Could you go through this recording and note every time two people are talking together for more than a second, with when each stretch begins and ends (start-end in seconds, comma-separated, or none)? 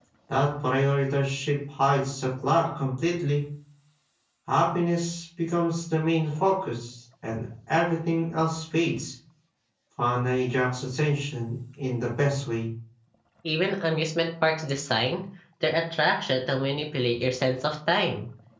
none